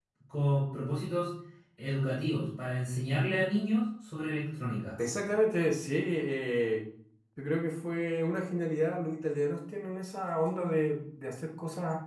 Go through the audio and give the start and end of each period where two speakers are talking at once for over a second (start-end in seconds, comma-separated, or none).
none